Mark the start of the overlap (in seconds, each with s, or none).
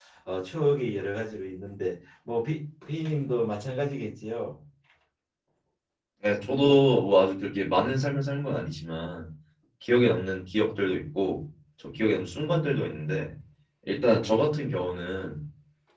none